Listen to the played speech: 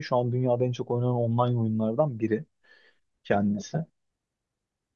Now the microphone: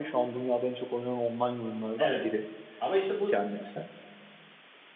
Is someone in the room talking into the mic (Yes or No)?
Yes